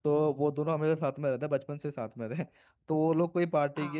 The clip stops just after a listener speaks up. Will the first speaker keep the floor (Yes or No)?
Yes